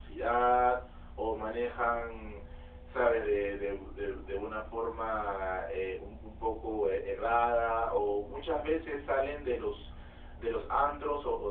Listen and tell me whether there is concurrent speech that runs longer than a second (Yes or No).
No